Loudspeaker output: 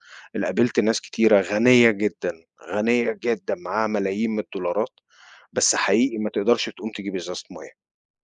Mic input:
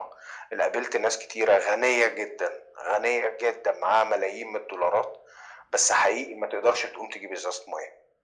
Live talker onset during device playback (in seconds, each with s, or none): none